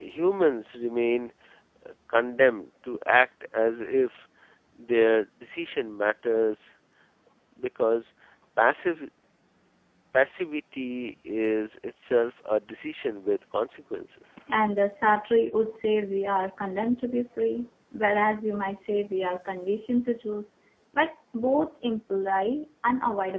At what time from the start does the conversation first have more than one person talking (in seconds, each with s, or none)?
none